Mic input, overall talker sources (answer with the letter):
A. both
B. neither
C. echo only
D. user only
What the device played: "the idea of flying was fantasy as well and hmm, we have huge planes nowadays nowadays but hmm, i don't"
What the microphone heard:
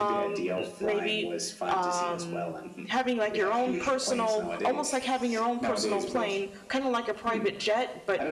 A